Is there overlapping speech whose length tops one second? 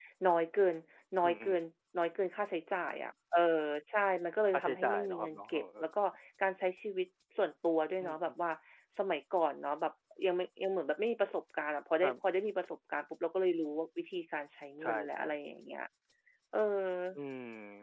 Yes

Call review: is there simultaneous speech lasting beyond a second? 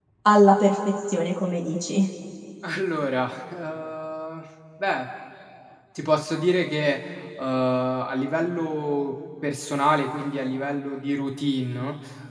No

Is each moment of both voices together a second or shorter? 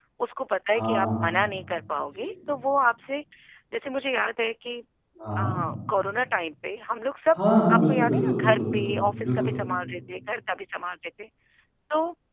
No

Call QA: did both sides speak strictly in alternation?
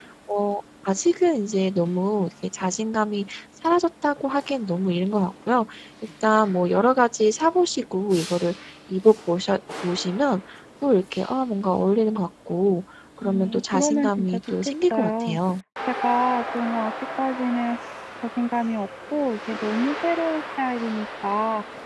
No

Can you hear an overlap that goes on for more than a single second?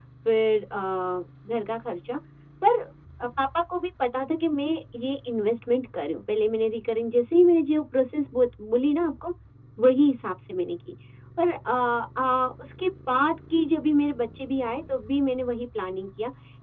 No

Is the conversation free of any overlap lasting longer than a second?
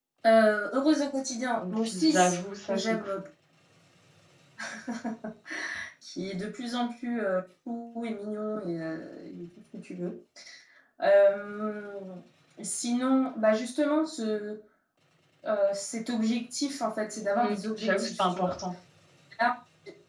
No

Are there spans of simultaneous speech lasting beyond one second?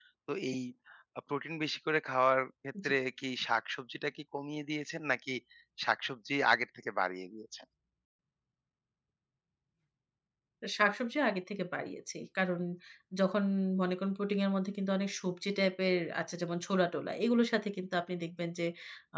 No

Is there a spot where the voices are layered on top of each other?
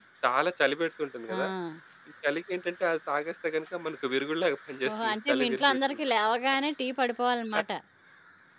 Yes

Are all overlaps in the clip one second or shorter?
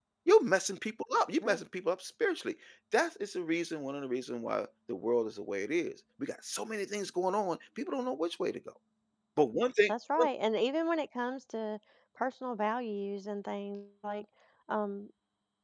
Yes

